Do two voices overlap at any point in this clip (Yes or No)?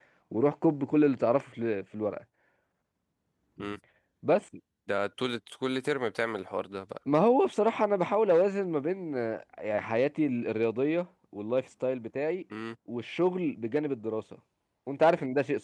No